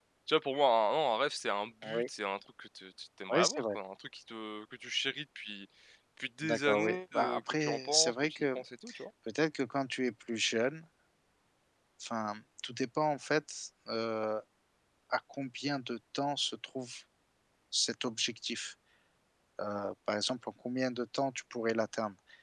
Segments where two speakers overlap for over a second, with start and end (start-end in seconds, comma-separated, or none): 6.4-8.6